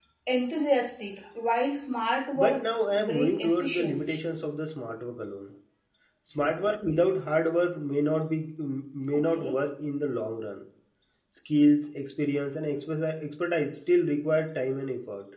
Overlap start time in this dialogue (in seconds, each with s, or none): 2.4 s